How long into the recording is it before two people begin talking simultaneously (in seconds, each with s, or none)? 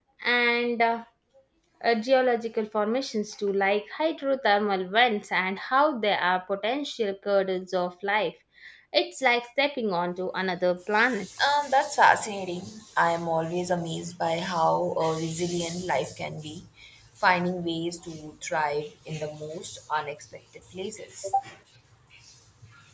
none